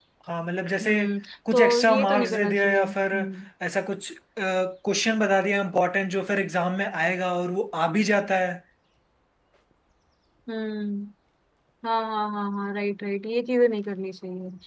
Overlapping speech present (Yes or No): Yes